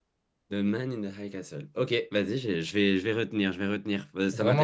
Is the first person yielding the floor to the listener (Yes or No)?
Yes